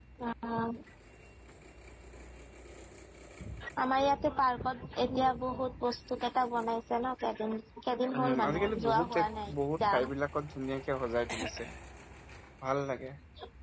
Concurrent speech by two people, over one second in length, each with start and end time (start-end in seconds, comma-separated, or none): 8.2-10.1